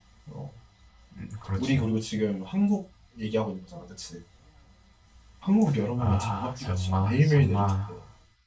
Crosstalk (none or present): present